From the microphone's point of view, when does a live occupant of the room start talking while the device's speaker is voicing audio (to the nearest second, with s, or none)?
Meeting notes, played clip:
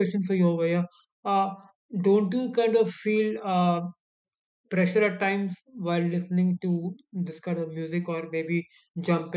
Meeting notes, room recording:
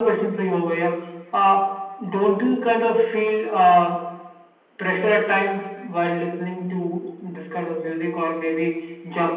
none